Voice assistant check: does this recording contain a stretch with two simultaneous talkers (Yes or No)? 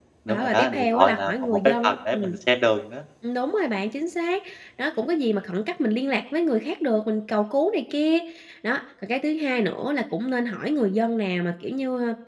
Yes